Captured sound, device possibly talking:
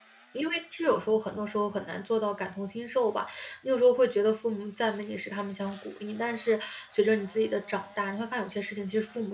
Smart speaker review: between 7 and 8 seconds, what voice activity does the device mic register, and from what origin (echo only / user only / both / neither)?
user only